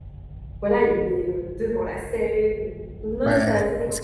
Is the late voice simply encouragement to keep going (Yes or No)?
No